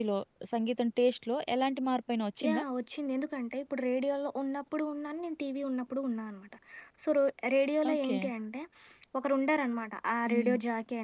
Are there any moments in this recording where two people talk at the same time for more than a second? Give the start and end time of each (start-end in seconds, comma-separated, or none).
none